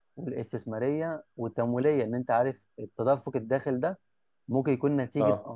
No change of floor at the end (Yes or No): Yes